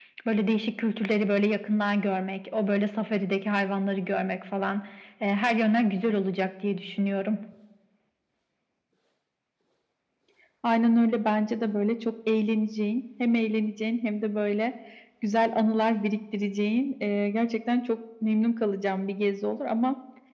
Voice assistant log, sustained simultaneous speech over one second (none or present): none